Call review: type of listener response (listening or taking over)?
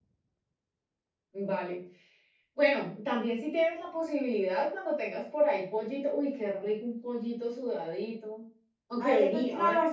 taking over